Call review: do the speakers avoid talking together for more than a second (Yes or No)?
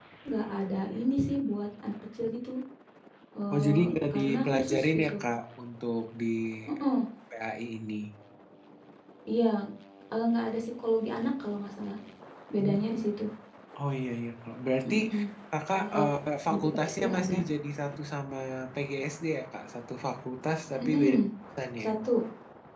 No